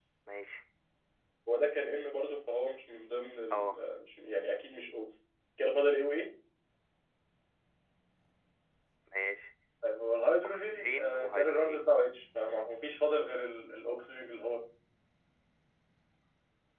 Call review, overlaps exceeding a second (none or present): present